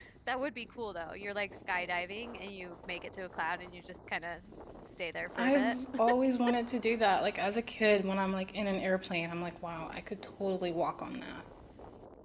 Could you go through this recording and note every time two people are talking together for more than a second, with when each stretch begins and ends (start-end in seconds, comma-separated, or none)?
none